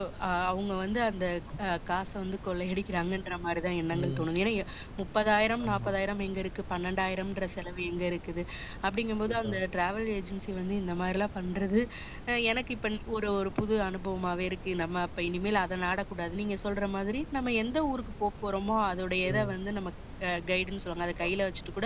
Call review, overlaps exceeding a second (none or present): none